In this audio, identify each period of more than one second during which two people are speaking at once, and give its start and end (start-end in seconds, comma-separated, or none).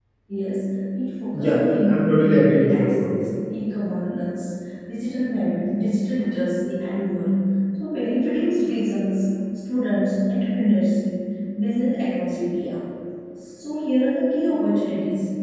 1.3-3.2